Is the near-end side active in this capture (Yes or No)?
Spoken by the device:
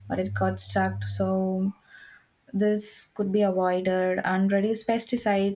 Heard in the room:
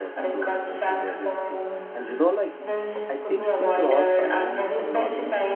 Yes